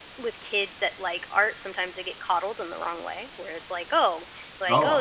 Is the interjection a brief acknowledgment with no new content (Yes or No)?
Yes